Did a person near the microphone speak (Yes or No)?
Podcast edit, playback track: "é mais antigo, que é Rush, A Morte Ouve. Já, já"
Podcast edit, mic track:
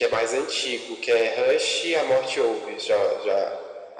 No